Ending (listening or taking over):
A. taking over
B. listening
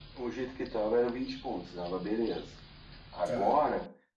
B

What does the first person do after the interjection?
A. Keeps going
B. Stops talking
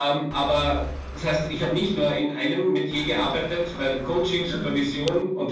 A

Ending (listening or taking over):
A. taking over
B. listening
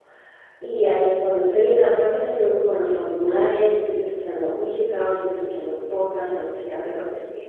B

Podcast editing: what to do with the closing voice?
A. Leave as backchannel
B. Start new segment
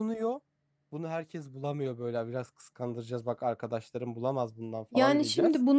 B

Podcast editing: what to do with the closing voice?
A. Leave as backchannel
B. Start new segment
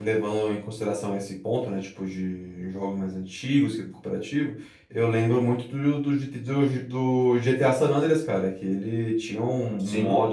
A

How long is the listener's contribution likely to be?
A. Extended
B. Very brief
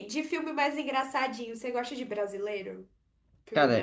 A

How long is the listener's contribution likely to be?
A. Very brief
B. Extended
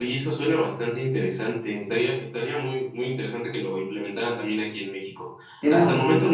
A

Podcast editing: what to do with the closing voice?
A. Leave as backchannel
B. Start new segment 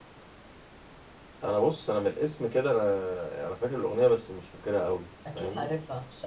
B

